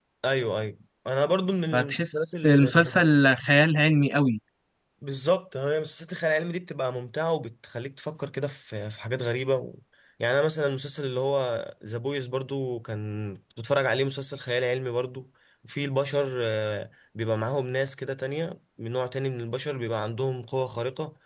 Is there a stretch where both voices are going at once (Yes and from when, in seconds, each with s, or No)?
Yes, from 1.7 s